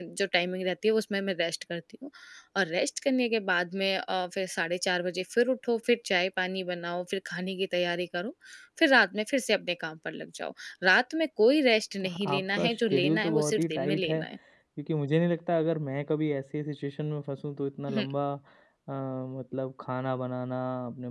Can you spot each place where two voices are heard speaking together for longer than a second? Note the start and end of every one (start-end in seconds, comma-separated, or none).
12.3-14.2